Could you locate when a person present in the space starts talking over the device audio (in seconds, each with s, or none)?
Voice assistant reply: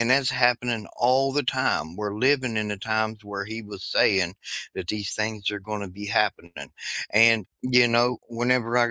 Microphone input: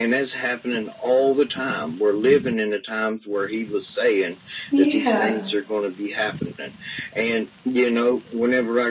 4.7 s